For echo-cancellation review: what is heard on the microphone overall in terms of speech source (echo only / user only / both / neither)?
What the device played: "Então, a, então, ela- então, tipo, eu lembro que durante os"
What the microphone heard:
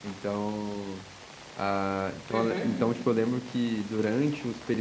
both